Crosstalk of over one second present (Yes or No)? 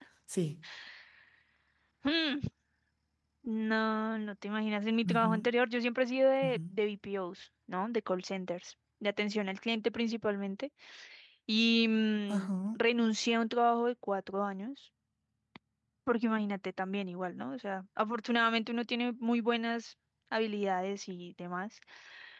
No